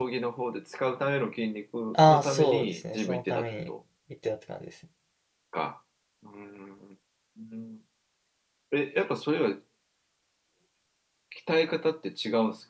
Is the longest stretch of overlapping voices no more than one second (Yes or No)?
No